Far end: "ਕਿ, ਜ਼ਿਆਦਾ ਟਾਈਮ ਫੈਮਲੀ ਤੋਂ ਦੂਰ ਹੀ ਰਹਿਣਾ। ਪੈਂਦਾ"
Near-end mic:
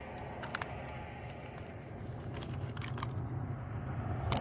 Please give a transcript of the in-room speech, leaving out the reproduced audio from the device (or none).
none